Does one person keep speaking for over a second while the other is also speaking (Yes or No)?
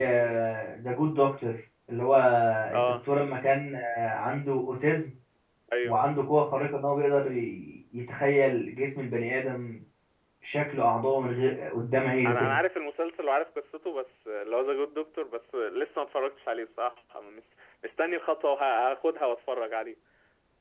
No